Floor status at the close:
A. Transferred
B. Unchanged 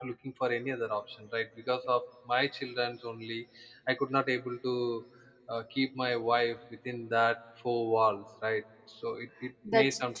B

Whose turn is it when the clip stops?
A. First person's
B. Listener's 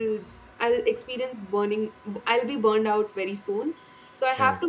A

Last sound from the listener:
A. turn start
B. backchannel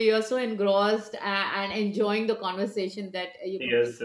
A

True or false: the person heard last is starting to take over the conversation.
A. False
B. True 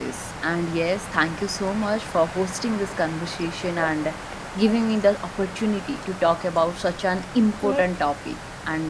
A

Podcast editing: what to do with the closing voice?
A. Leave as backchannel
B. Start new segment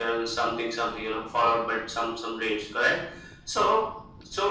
A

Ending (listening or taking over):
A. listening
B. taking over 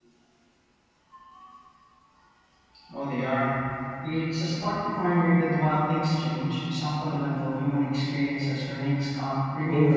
B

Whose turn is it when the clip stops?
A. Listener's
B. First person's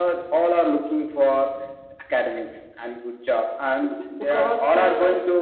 B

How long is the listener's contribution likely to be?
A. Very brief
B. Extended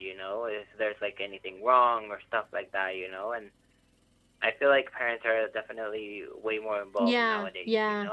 B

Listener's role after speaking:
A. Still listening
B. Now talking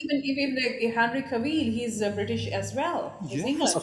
B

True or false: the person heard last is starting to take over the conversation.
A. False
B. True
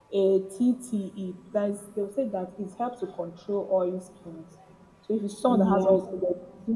A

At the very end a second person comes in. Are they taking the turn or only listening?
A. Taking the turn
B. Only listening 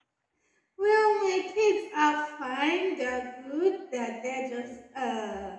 B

